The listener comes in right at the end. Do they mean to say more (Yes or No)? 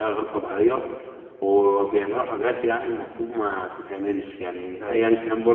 No